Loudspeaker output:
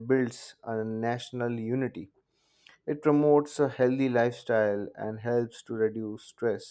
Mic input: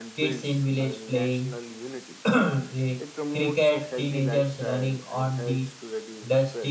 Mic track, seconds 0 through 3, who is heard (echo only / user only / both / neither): both